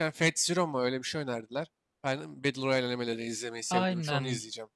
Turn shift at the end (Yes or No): Yes